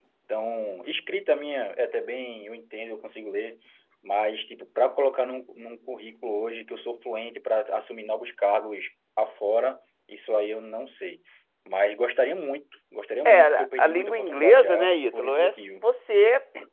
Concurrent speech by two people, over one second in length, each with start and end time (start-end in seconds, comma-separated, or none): 13.2-15.8